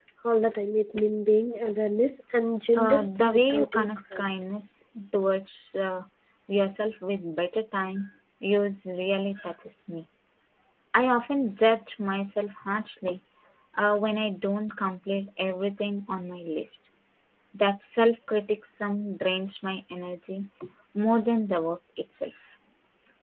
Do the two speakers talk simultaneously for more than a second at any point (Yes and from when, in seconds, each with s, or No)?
Yes, from 2.8 s